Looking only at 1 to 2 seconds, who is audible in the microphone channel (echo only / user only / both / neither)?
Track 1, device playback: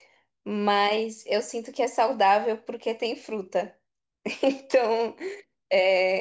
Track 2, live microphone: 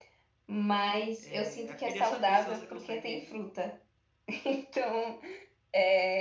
both